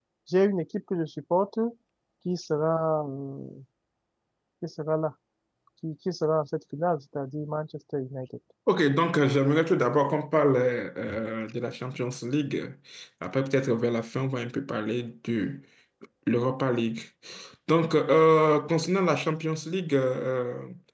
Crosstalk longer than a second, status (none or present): none